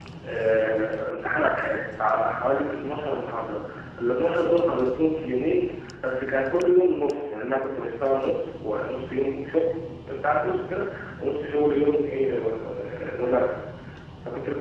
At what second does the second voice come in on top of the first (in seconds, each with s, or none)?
none